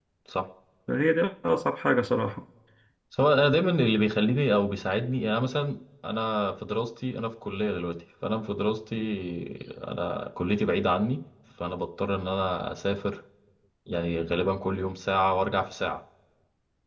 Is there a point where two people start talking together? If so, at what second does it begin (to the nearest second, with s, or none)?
none